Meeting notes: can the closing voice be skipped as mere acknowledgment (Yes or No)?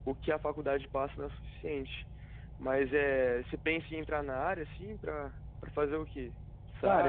No